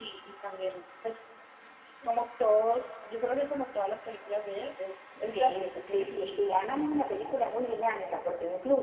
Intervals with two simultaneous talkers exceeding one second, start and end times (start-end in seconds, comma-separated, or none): 5.3-6.5